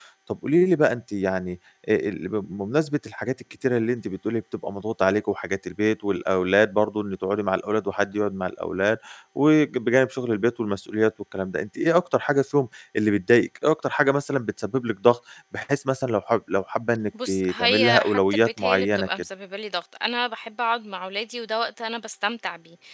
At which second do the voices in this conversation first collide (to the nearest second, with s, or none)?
17 s